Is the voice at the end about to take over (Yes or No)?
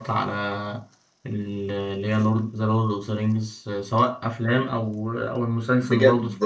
Yes